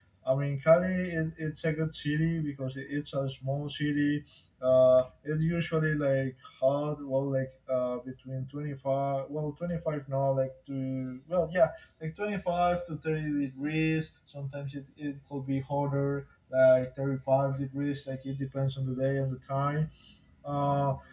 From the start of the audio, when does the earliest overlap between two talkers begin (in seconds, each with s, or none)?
none